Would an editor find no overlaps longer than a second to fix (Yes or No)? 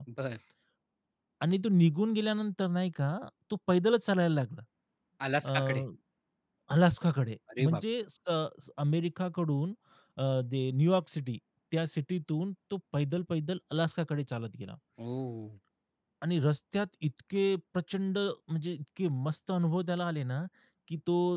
Yes